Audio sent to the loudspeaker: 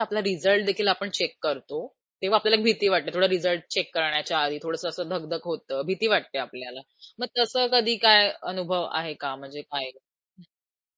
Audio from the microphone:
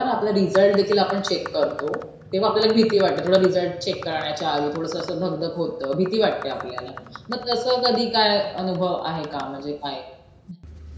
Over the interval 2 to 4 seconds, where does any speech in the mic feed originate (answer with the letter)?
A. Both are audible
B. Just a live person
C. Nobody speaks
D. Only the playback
D